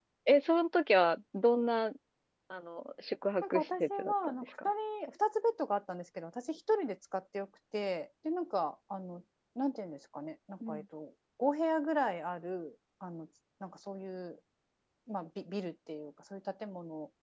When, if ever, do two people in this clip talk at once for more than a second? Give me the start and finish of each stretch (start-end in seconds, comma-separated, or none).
3.4-4.7